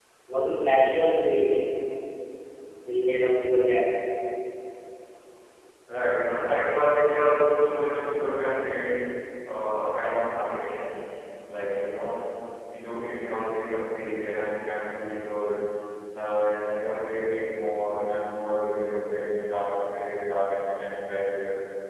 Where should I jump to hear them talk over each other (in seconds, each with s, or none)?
none